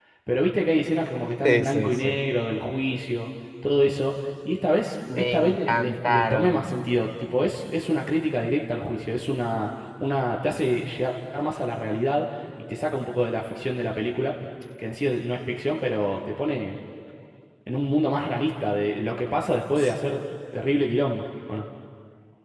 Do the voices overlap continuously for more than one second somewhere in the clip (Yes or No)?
Yes